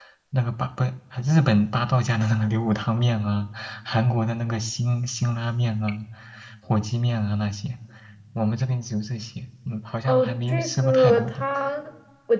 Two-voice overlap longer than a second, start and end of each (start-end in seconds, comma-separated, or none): 10.0-11.4